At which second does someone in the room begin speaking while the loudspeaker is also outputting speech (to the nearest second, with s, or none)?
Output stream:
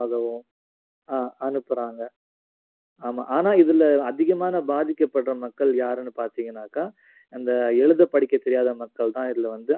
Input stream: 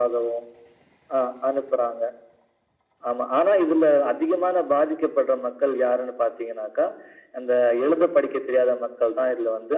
none